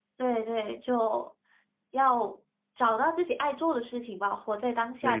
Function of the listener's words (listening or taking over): taking over